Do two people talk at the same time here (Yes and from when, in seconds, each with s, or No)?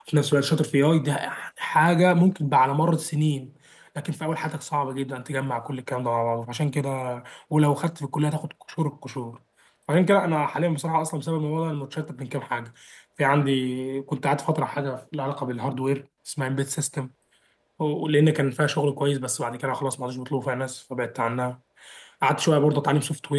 No